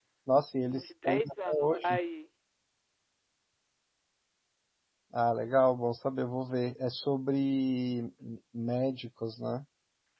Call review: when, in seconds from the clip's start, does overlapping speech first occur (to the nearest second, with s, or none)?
1 s